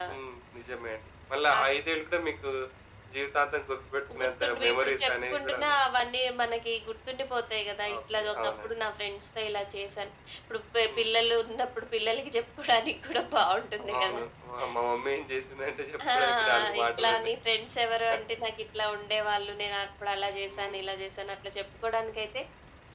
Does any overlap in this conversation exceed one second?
Yes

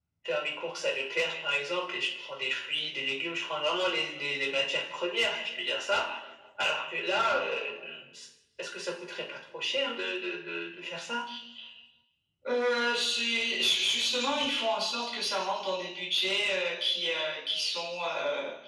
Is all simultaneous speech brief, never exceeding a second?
Yes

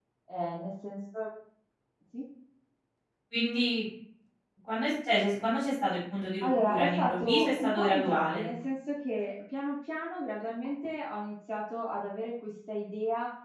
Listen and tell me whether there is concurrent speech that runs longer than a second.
Yes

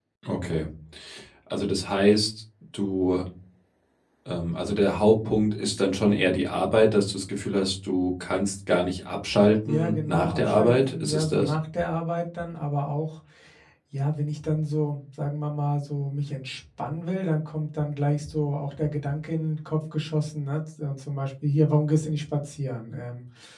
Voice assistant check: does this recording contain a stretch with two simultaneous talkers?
Yes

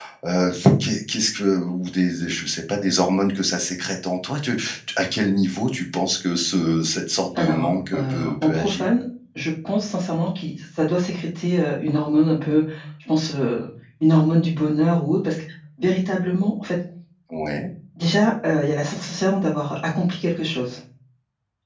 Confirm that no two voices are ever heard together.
No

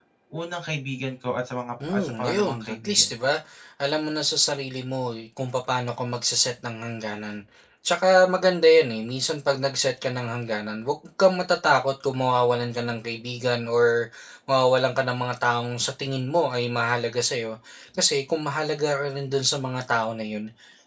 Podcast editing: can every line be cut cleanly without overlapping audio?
No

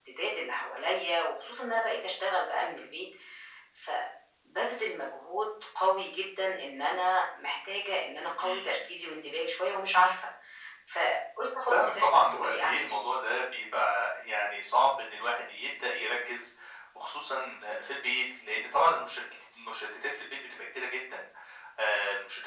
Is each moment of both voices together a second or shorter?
No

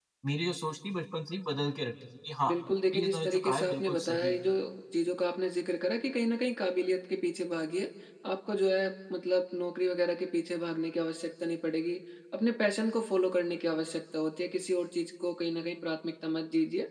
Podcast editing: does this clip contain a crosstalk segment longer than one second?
Yes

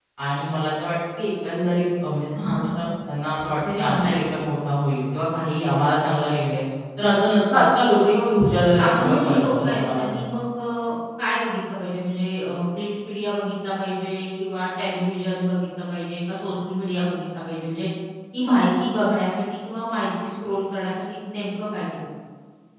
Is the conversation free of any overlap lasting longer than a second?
No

